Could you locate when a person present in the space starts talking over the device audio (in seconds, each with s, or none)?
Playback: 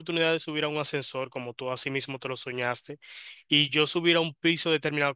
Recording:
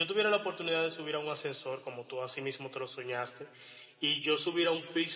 none